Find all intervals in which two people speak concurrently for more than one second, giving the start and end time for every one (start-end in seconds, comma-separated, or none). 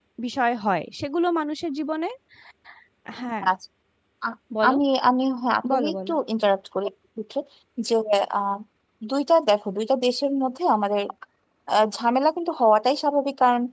none